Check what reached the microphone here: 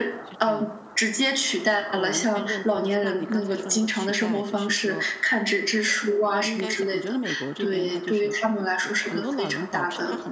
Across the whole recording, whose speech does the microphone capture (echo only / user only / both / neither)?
both